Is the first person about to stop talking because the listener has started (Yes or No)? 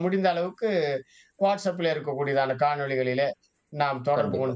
No